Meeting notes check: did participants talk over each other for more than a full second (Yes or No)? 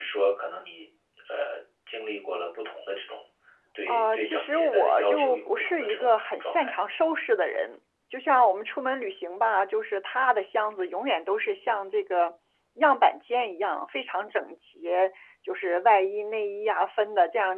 Yes